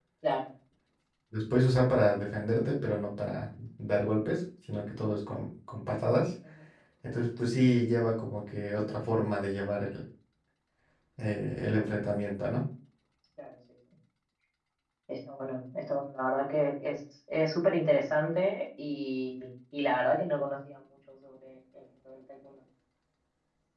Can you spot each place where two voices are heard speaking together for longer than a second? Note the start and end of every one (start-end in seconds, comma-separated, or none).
none